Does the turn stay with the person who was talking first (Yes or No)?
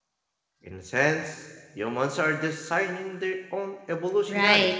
No